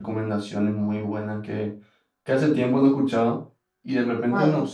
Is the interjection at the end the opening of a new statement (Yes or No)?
No